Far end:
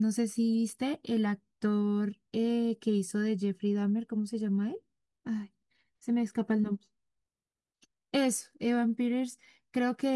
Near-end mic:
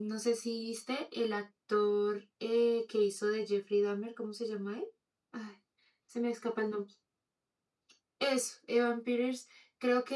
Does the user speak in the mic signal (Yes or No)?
No